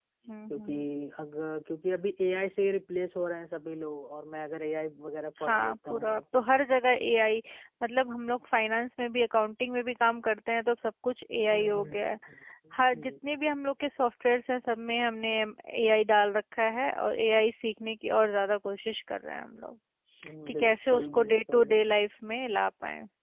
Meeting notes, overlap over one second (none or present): present